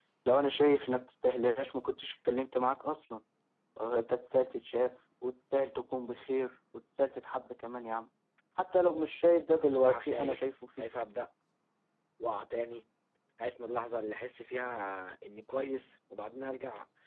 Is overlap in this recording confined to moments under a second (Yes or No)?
No